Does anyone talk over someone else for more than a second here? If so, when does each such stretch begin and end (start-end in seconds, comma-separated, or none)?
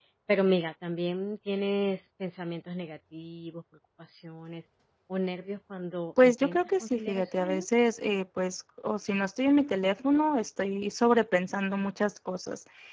6.2-7.6